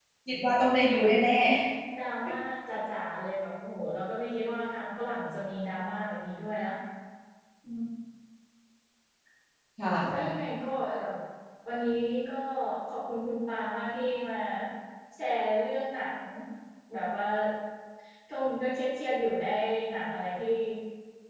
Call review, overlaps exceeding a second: none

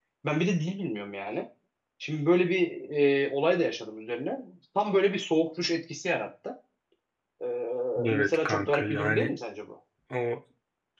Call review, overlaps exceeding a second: present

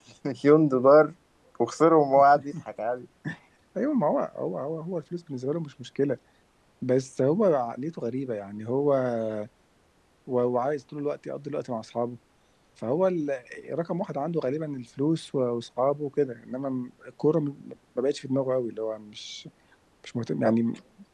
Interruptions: none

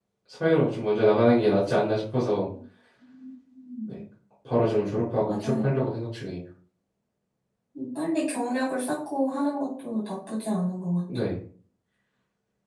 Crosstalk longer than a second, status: none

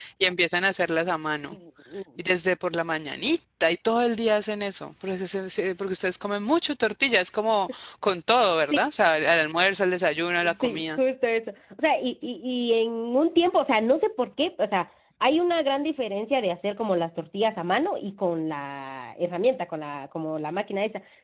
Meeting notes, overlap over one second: none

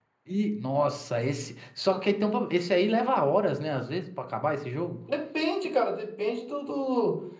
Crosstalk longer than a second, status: none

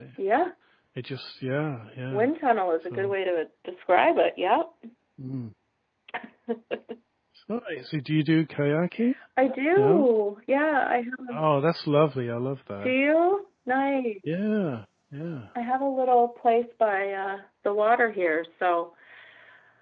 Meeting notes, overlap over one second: none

